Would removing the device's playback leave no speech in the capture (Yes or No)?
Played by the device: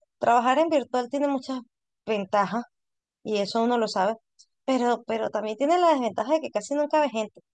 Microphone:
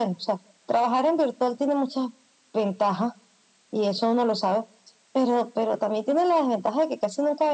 Yes